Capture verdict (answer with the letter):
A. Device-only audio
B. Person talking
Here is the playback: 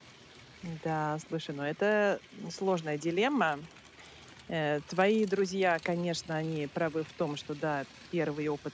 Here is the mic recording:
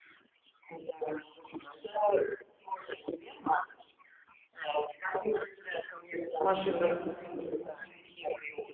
B